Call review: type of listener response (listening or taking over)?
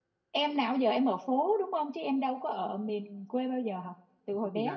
taking over